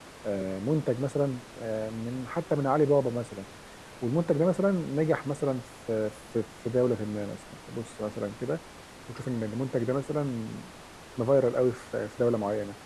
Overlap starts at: none

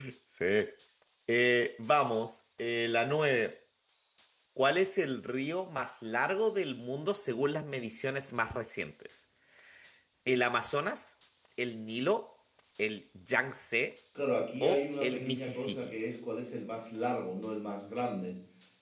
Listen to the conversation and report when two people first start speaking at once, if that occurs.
14.6 s

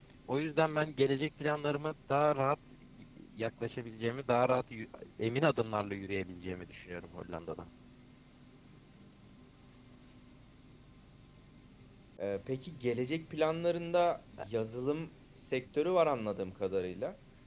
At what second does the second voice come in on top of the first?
none

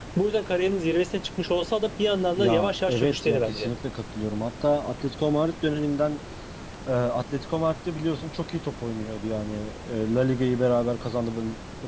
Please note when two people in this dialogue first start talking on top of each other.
2.4 s

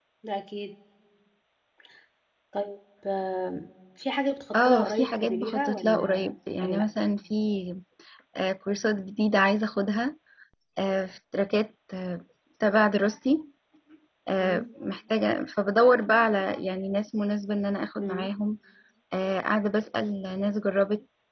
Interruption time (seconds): 4.5 s

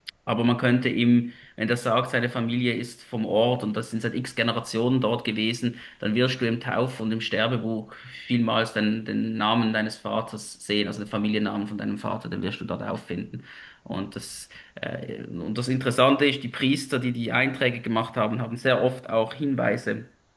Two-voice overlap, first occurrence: none

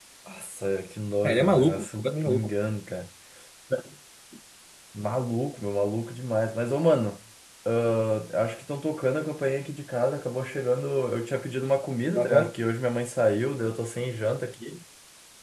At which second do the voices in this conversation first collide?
1.2 s

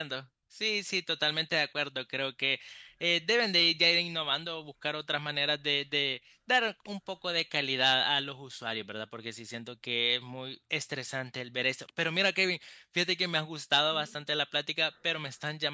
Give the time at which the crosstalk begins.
none

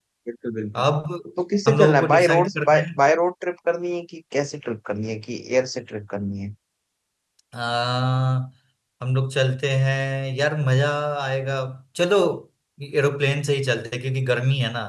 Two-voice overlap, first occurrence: 1.7 s

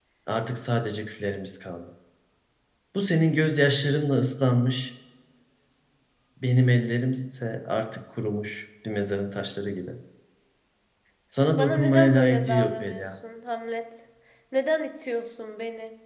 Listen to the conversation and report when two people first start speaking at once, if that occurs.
11.5 s

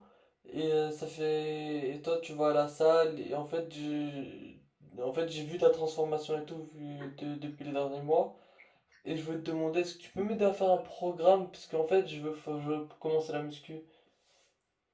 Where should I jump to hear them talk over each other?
none

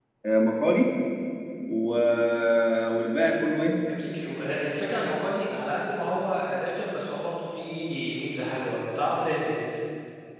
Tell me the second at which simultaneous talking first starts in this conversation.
none

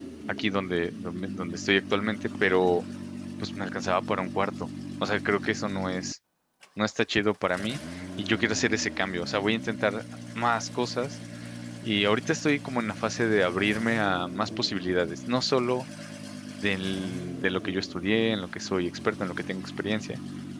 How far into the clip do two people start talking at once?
none

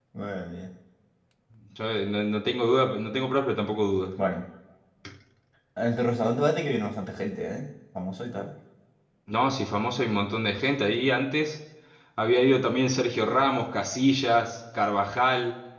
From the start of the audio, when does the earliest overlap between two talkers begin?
none

